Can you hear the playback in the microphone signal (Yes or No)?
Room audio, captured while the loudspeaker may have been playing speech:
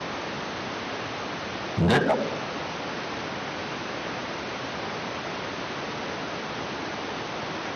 No